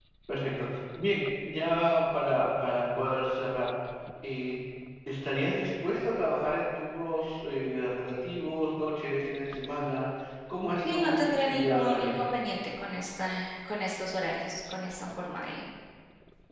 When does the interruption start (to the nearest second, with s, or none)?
11 s